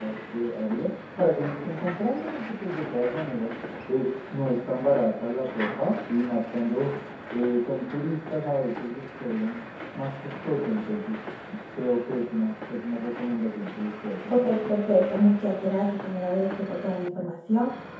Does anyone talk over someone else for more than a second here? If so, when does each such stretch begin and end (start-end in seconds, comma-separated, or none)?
none